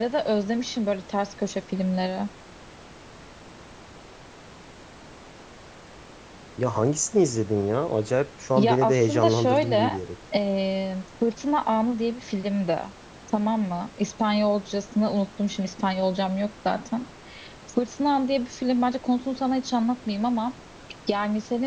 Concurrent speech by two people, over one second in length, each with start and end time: 8.6-9.9

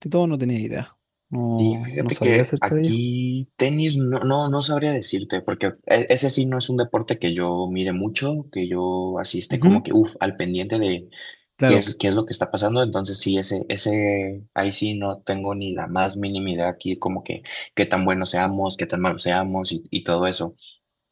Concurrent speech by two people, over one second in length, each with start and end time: 1.6-2.9

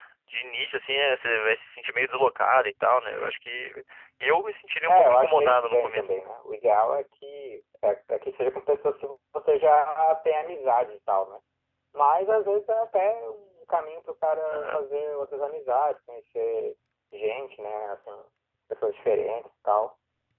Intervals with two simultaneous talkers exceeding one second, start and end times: 4.9-6.1

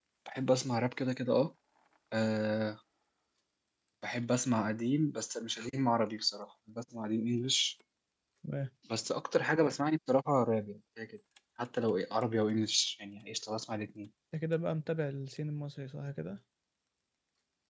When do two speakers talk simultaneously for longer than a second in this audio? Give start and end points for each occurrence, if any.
none

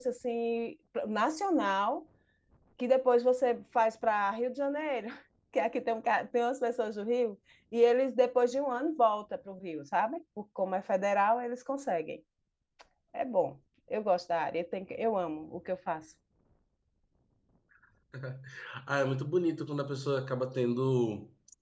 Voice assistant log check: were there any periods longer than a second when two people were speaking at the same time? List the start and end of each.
none

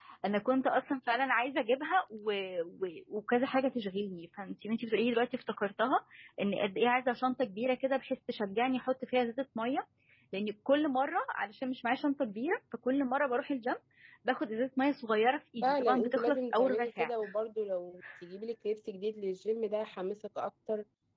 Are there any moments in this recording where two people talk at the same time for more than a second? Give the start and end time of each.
15.6-17.1

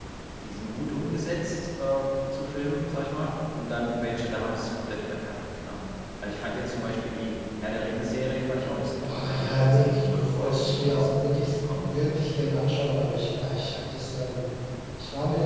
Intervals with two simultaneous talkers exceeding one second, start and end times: 9.0-11.0

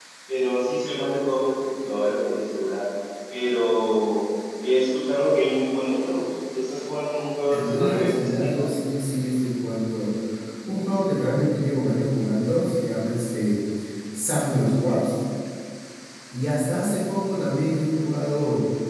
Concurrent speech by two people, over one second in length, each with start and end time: 7.5-8.8

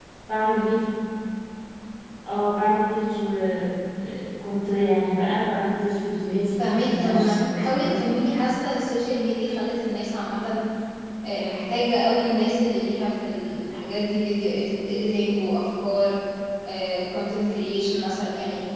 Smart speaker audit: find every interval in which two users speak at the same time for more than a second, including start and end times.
6.6-8.0

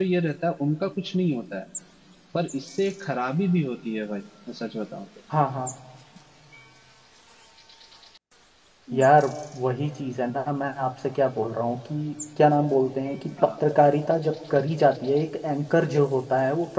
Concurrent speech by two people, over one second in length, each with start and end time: none

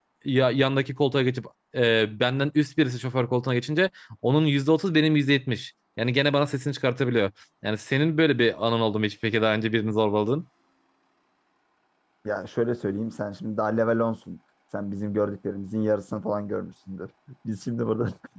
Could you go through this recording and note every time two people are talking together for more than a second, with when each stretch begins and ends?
none

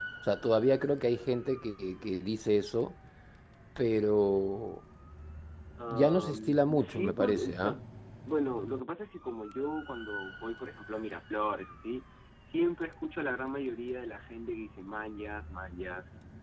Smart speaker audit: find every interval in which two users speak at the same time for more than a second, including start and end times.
5.9-7.8

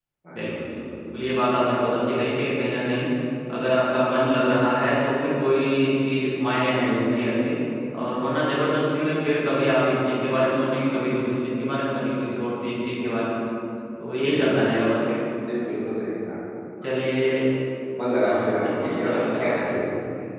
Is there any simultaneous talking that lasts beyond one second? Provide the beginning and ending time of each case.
18.2-19.5

